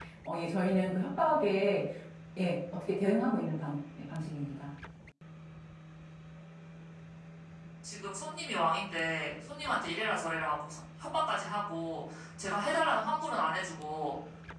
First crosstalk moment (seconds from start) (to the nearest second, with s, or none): none